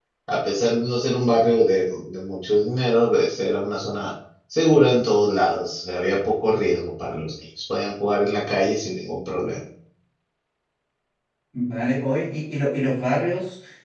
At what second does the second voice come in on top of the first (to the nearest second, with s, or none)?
none